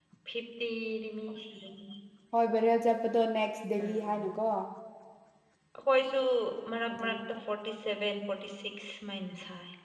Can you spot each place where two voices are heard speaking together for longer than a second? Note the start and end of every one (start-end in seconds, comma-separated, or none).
none